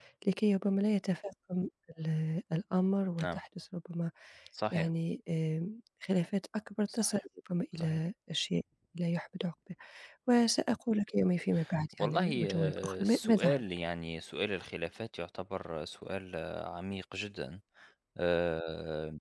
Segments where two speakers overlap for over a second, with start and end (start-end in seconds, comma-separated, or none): 12.0-13.6